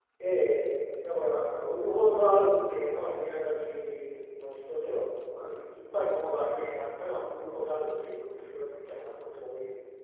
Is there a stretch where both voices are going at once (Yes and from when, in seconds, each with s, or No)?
No